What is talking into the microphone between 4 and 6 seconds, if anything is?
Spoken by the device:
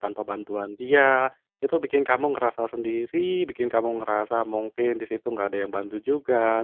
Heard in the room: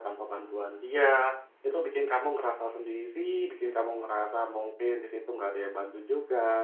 echo only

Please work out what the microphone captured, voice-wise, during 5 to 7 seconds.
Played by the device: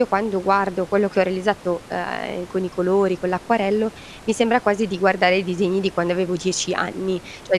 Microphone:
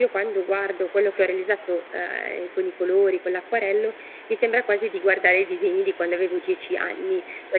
echo only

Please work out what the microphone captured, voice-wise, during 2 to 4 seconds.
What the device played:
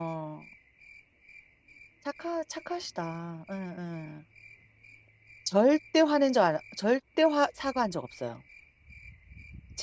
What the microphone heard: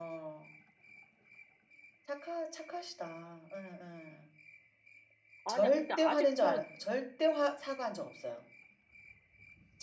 echo only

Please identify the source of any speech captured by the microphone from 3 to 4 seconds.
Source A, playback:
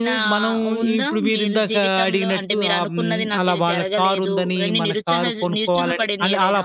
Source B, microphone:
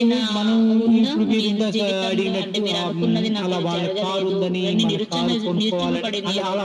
echo only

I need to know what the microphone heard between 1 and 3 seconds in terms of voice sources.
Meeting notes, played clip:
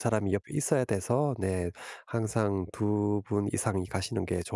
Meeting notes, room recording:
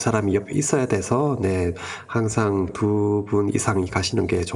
echo only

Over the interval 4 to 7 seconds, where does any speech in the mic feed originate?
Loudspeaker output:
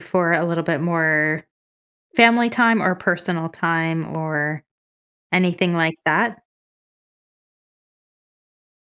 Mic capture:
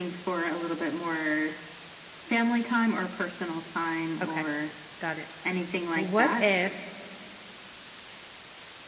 both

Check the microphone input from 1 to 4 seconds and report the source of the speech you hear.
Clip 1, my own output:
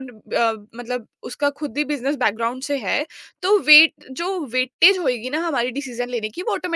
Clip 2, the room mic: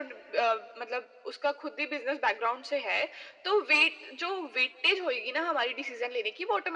echo only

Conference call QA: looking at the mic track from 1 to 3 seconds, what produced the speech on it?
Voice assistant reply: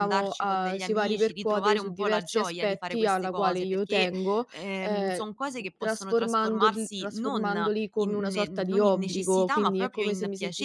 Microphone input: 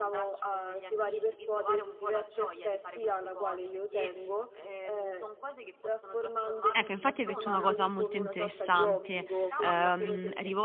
echo only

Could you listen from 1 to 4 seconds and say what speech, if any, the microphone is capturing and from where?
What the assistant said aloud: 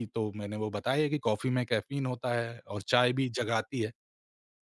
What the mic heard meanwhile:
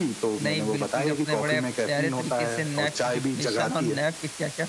both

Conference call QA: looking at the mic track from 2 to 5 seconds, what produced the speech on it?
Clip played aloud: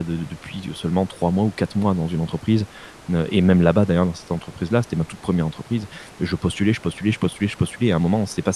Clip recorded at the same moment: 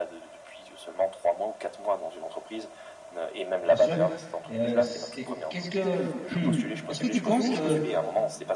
both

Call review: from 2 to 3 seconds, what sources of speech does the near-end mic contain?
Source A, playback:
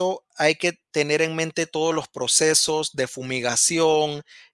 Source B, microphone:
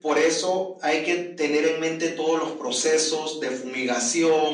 echo only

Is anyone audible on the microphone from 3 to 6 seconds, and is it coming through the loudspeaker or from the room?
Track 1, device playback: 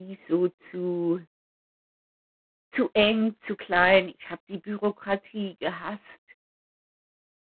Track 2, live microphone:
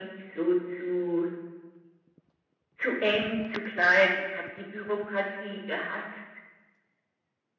echo only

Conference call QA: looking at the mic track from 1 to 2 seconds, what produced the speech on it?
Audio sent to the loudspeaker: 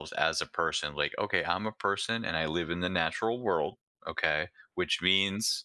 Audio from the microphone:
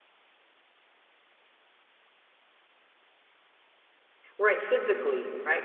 neither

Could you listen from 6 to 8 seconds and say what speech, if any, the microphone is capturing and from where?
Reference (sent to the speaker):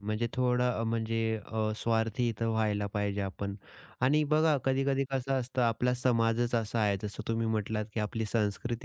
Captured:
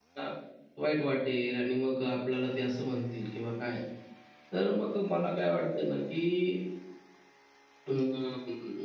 user only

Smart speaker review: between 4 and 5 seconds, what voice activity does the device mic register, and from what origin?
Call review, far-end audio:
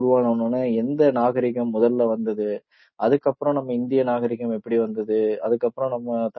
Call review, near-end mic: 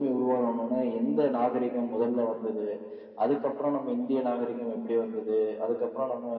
echo only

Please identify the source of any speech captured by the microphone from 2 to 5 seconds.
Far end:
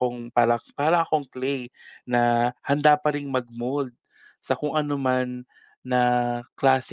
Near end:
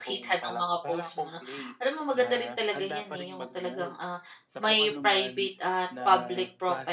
both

